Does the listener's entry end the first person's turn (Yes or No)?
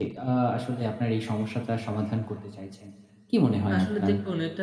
Yes